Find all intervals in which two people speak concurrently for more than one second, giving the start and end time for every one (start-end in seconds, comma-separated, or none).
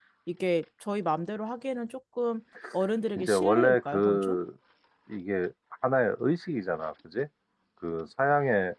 3.2-4.4